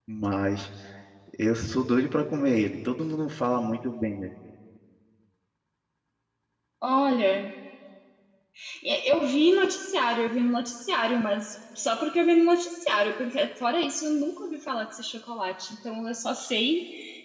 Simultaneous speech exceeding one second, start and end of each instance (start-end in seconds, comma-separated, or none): none